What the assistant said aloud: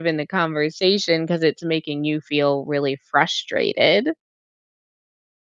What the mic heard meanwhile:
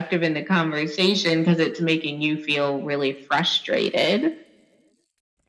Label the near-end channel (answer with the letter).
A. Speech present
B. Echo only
B